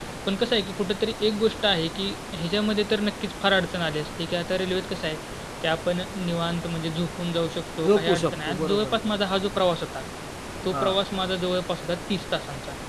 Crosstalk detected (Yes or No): Yes